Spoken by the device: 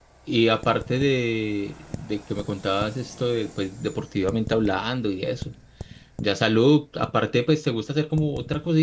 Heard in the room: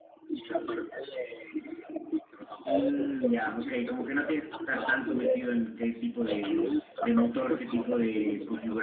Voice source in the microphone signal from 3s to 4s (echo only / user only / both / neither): both